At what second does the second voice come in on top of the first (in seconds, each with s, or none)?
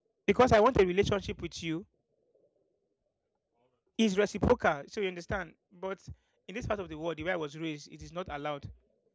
none